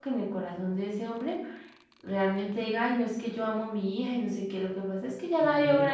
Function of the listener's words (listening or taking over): listening